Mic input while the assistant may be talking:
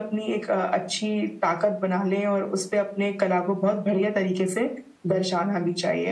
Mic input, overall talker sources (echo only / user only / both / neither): echo only